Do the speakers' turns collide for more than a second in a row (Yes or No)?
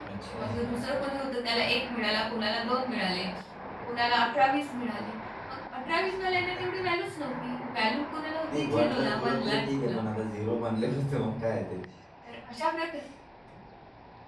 Yes